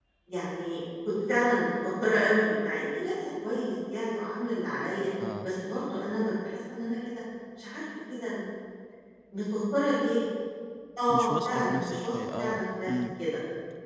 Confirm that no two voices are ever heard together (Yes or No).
No